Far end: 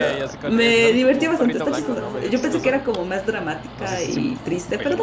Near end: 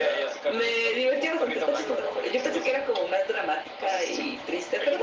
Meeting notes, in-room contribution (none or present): none